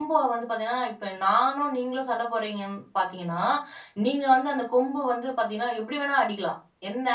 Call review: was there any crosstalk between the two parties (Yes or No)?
No